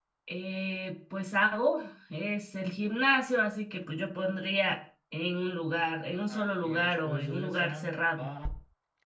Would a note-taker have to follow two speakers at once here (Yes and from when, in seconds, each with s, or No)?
Yes, from 6.1 s